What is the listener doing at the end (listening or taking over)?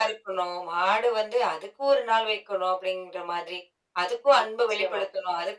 listening